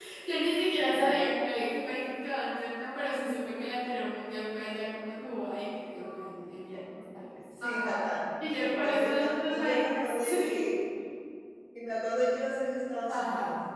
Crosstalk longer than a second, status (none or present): present